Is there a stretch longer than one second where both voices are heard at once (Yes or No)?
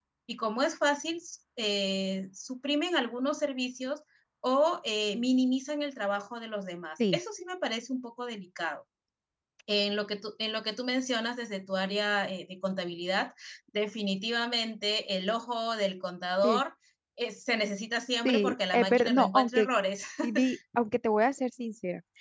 Yes